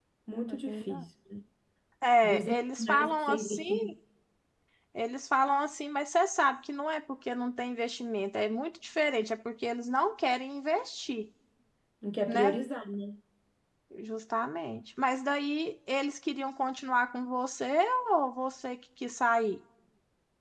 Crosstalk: present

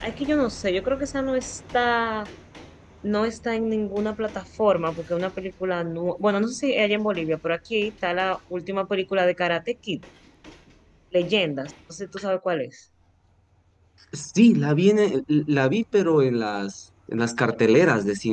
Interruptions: none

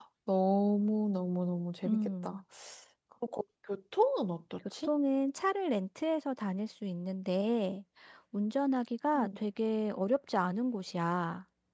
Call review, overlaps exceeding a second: none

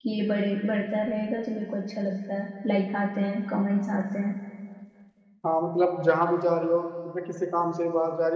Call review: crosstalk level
none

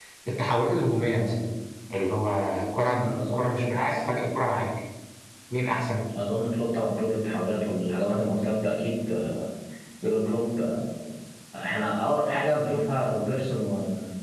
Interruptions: present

